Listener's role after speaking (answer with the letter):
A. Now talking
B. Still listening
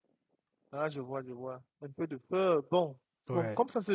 B